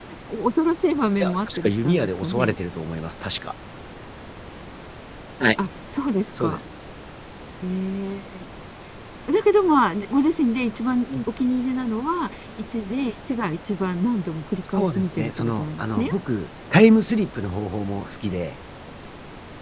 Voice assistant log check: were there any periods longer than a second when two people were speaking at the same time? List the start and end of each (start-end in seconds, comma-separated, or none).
1.2-2.6, 14.7-16.1